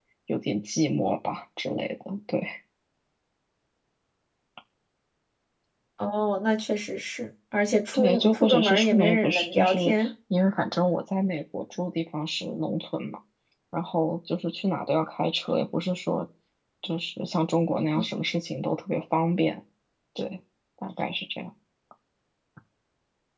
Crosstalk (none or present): present